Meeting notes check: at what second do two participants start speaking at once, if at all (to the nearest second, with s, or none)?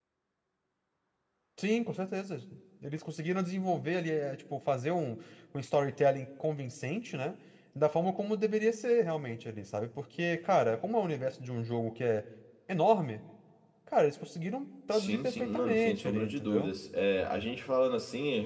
15 s